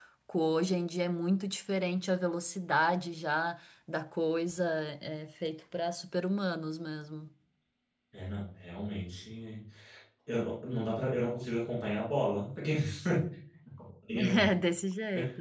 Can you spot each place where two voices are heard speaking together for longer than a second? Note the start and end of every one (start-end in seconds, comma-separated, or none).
none